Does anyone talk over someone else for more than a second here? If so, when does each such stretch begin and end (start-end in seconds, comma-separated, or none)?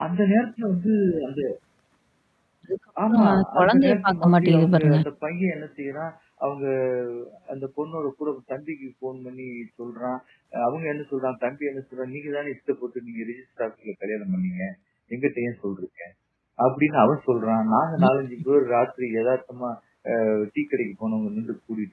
3.1-5.0